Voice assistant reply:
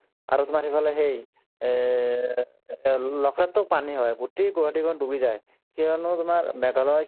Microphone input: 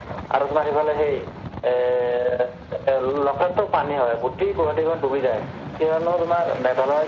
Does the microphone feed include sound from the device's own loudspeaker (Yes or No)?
Yes